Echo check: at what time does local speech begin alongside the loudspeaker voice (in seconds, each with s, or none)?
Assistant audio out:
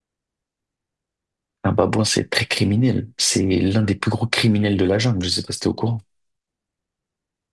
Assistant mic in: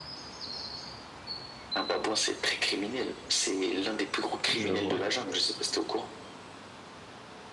4.5 s